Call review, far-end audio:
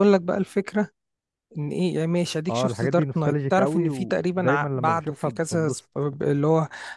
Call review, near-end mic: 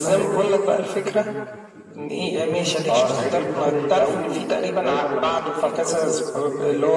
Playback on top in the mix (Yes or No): Yes